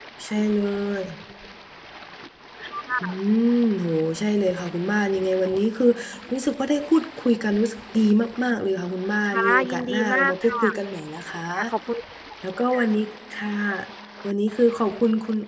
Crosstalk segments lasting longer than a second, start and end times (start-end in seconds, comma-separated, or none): 9.2-10.5